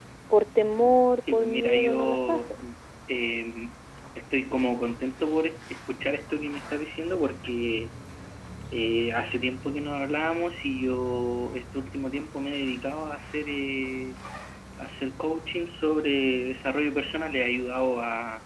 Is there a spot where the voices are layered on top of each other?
Yes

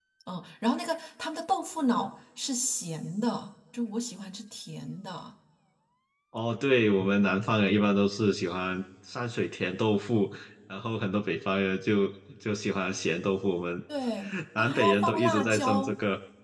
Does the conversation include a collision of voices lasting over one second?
Yes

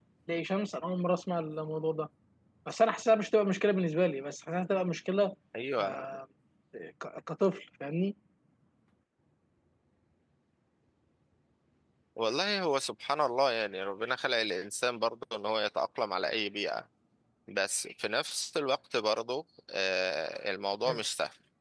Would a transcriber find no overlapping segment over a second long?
Yes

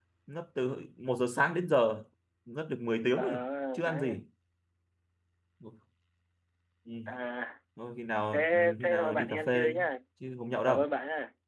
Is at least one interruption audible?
Yes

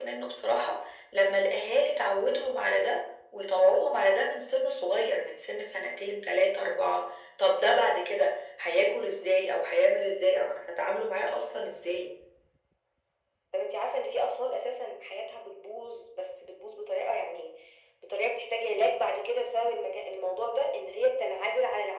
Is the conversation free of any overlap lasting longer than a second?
Yes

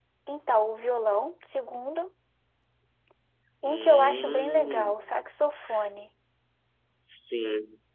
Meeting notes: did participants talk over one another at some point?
Yes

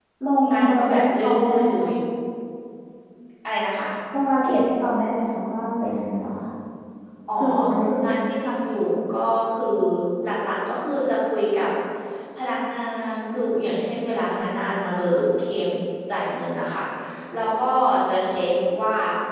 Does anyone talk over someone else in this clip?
Yes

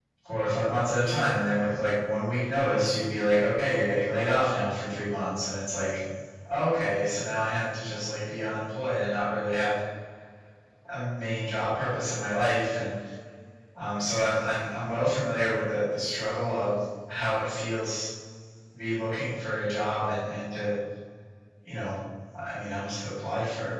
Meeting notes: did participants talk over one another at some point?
No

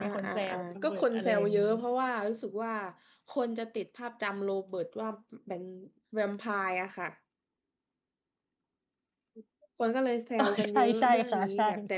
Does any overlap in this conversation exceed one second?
Yes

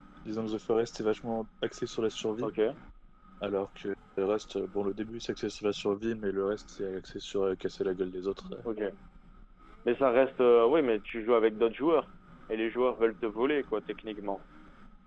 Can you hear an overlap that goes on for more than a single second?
No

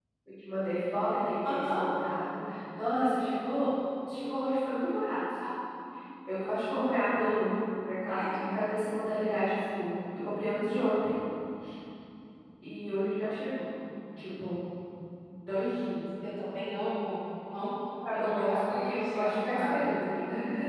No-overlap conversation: No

